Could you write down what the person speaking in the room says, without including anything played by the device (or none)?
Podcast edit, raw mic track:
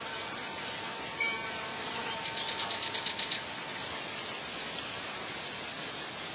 none